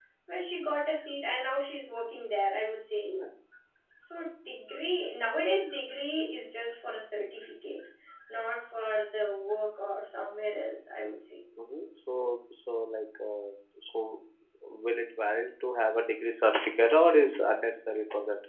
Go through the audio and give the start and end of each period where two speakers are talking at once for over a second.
none

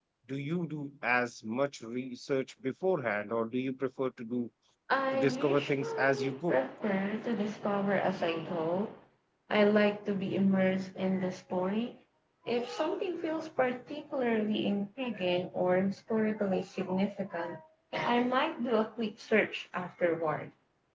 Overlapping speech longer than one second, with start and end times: 5.1-6.6

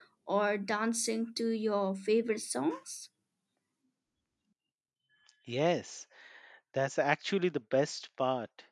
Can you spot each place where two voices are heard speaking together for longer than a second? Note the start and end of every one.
none

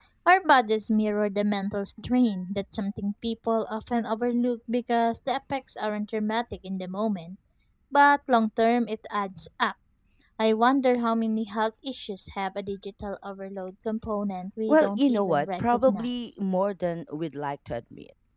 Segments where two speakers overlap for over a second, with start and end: 14.7-16.4

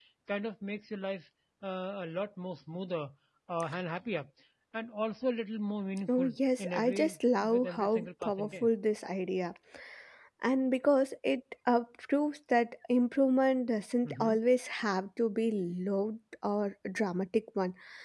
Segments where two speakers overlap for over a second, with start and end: 6.1-8.7

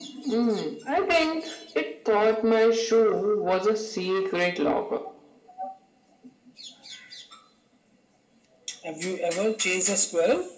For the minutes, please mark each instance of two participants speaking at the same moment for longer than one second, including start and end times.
none

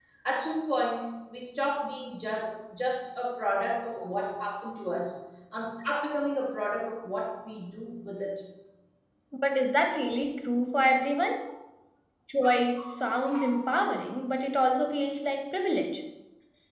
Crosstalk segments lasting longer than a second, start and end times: none

